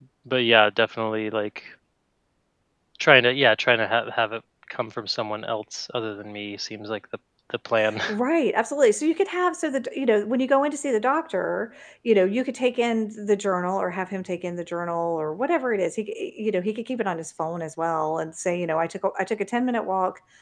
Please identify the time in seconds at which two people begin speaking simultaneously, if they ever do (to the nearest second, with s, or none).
none